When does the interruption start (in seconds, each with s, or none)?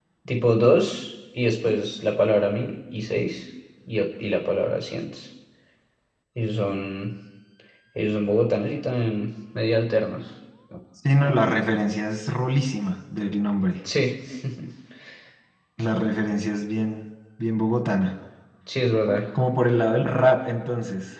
none